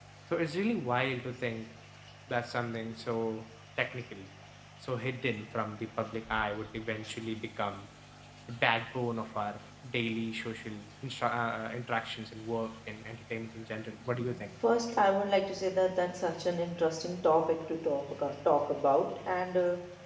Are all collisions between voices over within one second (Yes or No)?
Yes